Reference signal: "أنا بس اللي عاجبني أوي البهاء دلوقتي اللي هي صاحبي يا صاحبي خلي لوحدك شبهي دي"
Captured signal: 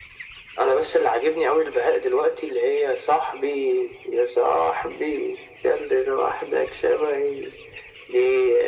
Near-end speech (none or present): none